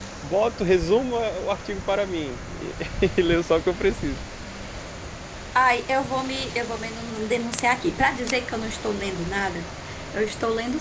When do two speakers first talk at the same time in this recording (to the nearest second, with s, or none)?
none